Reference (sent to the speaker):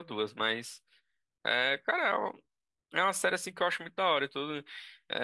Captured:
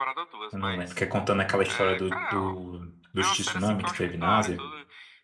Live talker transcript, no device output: Eu não lembro, que é contando aquela história do, do, dos tsunami que teve na Ásia.

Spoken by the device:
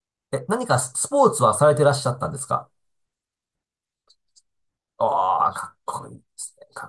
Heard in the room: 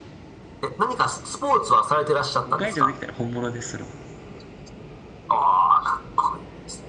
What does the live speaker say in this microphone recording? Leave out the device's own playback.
5回以上できたら本物です、それは。

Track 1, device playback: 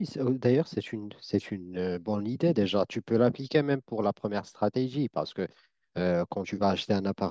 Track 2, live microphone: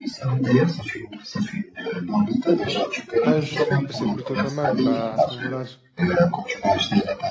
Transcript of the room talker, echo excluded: Eh ben, bah, je trouve que c'est plutôt pas mal. Bah, à ce moment-là, je

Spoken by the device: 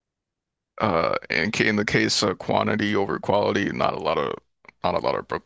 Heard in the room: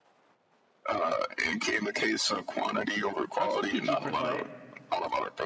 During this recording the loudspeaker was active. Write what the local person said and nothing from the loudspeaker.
I'd sub PG for Clay.

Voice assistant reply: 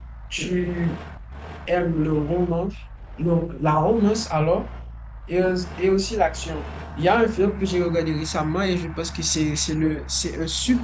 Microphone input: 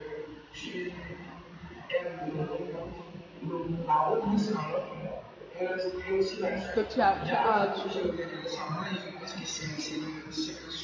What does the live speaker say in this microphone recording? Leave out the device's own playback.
Donc, tu as, tu as, tu-

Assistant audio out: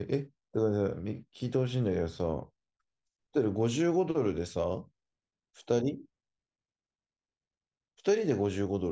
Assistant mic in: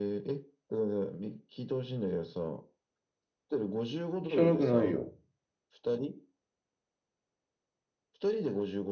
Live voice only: 汚くないよ。

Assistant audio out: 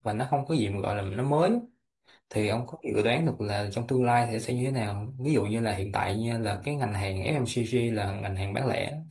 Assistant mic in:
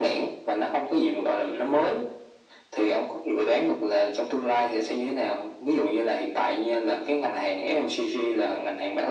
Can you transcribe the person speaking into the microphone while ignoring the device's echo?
none

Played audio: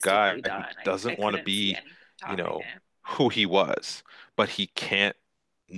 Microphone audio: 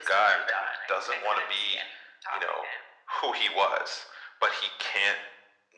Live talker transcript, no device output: none

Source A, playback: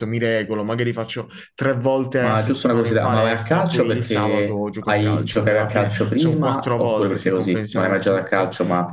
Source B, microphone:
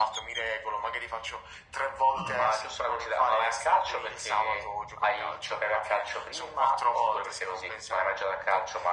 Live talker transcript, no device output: Ah.

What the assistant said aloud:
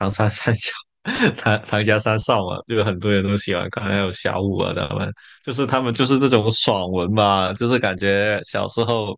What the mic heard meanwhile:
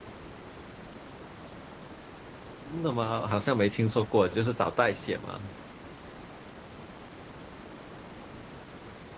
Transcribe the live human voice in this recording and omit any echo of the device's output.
真的吗？好像没听说过，就是找代写嘛，

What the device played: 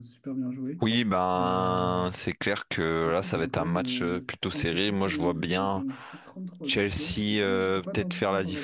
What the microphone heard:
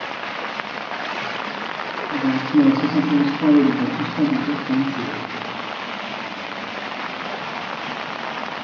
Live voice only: ils ont Arsenal à 71 points, ouais, donc à 12 points d'écart quand même, c'est,

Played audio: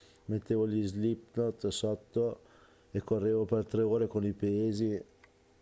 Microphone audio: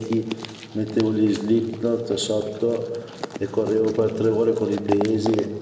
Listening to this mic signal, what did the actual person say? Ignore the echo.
none

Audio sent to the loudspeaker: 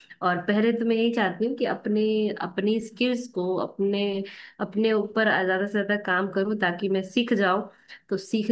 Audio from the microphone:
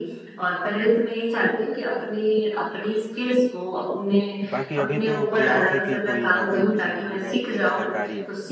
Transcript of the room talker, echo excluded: बाकी अभी तो प्रयास है कि कोई नौकरी मुझे भी मिल जाए एक सरकारी

